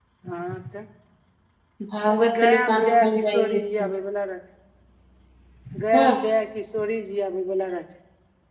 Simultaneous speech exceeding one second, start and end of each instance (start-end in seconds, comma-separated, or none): 2.1-3.6